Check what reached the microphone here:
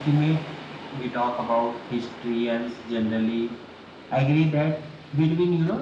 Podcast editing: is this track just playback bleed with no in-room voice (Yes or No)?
Yes